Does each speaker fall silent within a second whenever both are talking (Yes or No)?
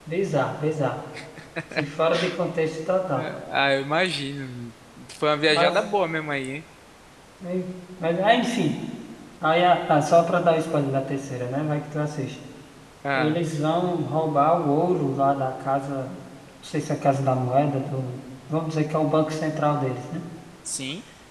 Yes